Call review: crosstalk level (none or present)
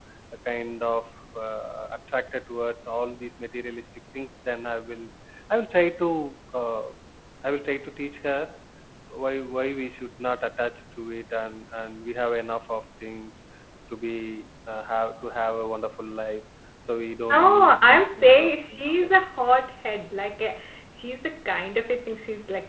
present